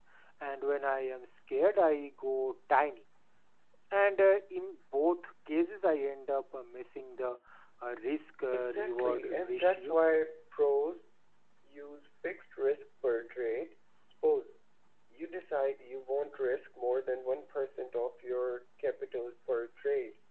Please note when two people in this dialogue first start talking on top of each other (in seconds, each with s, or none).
8.5 s